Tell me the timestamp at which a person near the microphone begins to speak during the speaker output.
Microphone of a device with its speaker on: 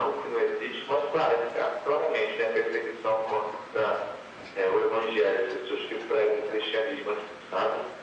none

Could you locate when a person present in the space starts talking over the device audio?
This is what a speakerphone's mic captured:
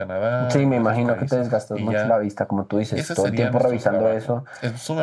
none

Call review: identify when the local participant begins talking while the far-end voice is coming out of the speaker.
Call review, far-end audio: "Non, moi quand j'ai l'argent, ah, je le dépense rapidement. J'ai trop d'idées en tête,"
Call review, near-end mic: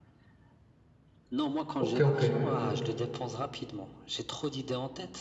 1.8 s

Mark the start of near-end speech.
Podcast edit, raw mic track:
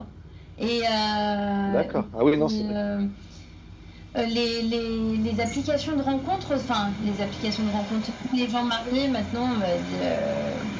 1.7 s

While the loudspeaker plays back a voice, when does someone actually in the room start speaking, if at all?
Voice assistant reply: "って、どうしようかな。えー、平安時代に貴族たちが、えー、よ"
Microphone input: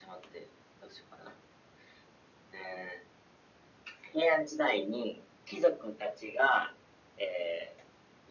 none

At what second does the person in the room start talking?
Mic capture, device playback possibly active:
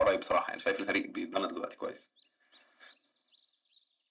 none

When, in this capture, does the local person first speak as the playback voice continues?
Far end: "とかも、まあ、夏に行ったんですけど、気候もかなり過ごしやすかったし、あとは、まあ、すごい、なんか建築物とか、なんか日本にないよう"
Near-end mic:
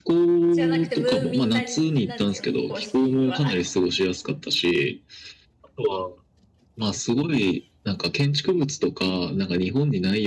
0.5 s

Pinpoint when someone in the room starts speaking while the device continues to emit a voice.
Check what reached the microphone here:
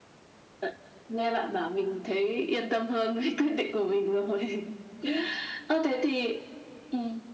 none

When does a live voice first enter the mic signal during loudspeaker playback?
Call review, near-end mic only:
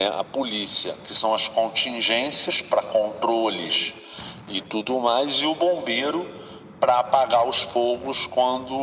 none

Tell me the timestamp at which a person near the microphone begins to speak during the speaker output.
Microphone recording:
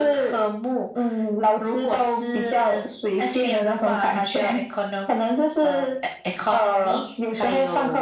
none

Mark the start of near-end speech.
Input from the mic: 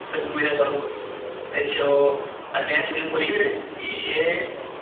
none

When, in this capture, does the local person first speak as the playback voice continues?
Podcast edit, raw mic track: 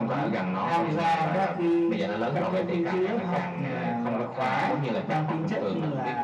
none

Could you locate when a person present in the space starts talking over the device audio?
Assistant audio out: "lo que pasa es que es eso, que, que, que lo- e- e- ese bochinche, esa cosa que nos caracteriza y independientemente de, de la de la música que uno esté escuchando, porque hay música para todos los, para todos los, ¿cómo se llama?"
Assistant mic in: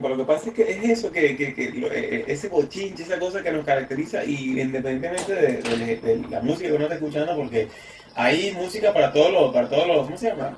none

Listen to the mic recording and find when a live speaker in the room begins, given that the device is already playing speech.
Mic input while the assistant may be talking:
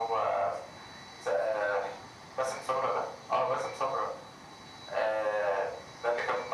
none

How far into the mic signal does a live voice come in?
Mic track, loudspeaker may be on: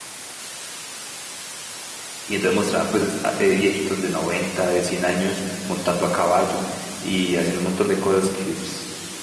2.2 s

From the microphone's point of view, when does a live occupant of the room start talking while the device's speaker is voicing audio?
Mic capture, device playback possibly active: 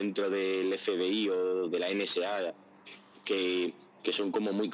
none

